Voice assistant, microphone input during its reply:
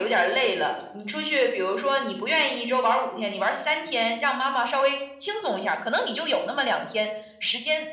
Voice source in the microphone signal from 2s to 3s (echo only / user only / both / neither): echo only